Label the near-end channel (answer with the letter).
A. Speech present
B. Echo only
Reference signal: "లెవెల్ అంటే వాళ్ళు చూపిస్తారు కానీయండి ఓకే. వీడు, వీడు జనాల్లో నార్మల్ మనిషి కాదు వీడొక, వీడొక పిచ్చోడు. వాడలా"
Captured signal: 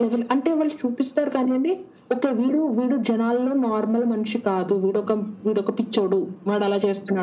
B